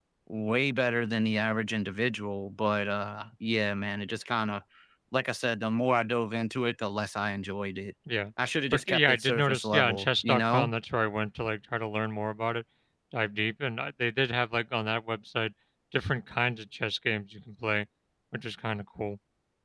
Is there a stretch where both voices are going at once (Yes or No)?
Yes